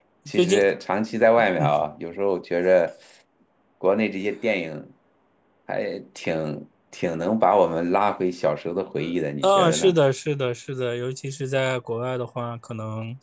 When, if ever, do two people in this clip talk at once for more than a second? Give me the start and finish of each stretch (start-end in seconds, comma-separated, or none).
none